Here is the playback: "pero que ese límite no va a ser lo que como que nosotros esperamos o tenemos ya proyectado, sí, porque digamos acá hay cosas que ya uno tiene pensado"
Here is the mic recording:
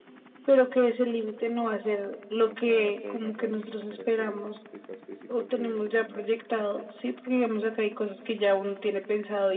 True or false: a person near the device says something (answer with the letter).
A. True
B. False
A